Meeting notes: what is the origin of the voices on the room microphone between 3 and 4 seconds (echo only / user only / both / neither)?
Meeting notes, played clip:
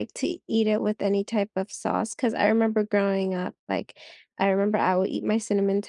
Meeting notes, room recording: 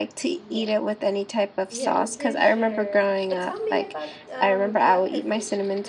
both